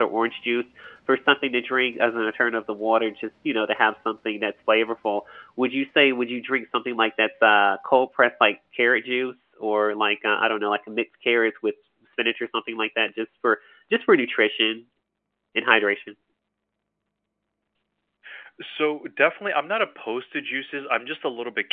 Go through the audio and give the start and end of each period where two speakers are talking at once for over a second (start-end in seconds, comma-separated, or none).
none